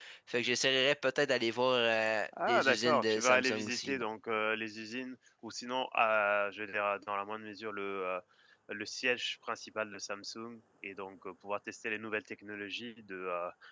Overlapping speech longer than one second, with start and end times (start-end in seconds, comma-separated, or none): 2.5-4.0